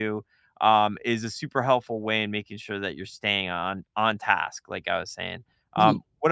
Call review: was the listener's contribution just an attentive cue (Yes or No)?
Yes